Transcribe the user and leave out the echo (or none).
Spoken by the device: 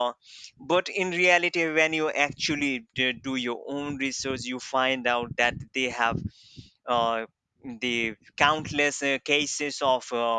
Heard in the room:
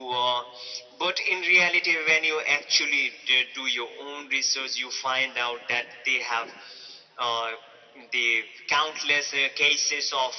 none